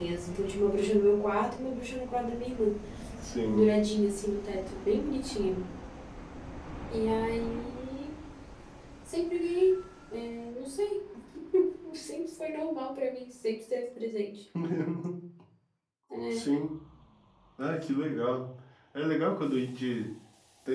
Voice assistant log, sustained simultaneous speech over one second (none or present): none